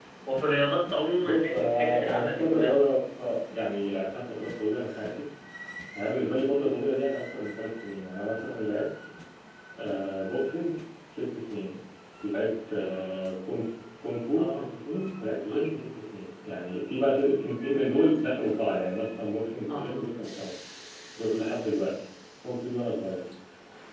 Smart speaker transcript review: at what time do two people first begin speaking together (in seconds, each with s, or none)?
1.2 s